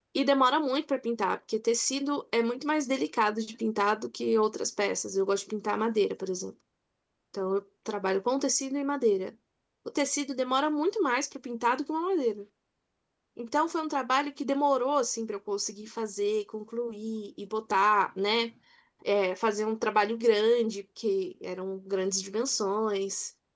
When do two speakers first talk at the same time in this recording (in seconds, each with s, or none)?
none